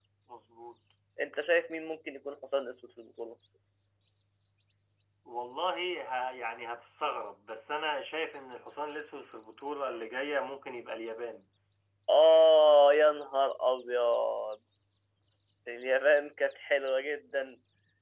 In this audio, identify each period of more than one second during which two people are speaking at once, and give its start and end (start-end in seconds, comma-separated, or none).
none